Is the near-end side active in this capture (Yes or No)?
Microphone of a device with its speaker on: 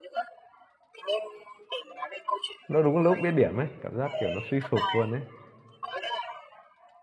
Yes